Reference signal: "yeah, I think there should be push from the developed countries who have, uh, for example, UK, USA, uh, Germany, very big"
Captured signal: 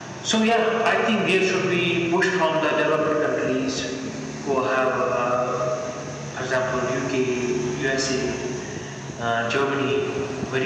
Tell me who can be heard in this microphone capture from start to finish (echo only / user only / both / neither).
echo only